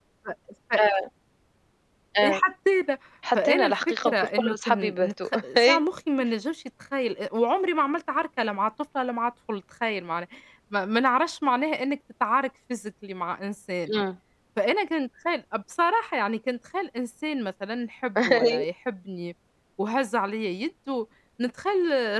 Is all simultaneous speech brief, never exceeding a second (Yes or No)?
No